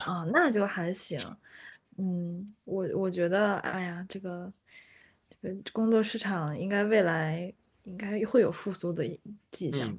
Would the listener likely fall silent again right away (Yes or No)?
No